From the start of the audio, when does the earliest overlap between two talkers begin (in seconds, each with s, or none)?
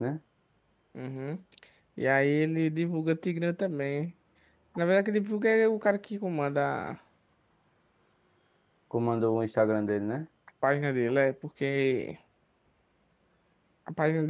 none